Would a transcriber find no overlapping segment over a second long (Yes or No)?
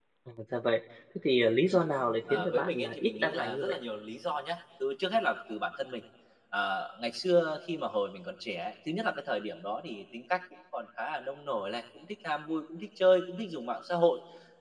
No